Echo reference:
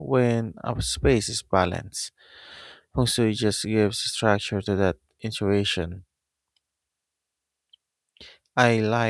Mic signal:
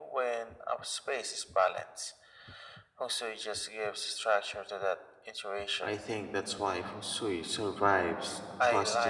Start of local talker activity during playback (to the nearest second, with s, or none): 6 s